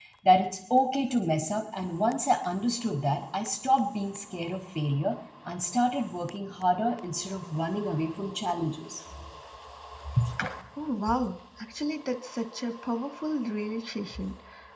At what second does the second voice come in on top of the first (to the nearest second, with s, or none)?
none